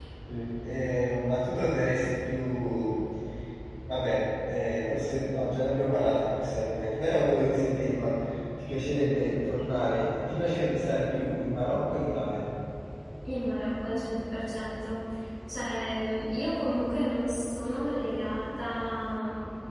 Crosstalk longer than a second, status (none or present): none